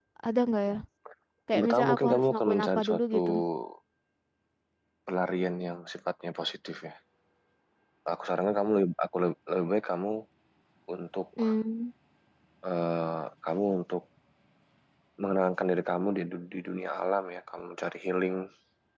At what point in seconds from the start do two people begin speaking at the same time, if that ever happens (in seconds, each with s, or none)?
1.5 s